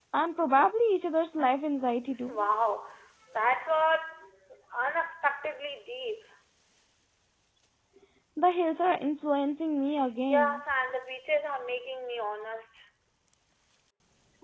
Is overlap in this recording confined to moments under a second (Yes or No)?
Yes